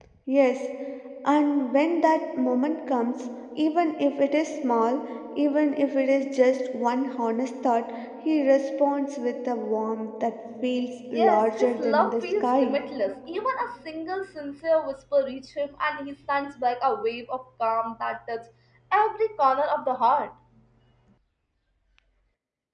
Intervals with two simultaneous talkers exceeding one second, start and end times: 11.1-12.8

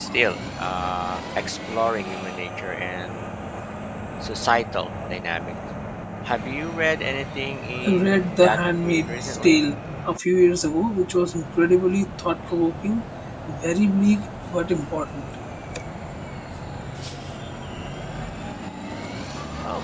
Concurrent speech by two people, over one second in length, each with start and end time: 7.9-9.6

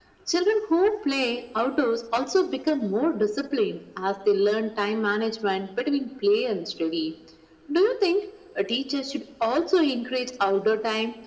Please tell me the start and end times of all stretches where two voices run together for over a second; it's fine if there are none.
none

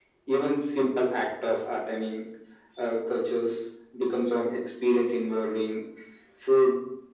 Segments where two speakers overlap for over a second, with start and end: none

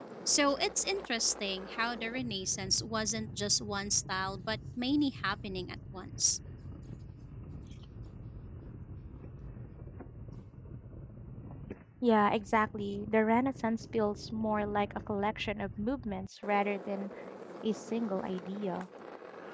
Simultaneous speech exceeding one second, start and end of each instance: none

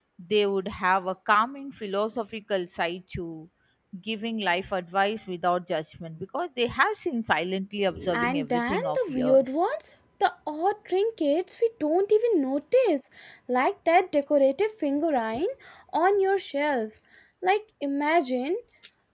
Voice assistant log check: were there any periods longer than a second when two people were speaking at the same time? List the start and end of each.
8.1-9.7

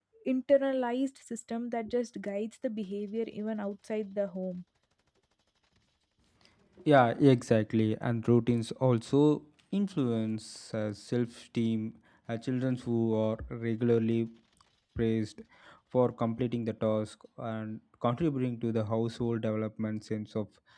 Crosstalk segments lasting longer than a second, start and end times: none

